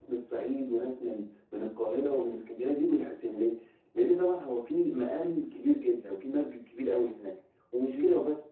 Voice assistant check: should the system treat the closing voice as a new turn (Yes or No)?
No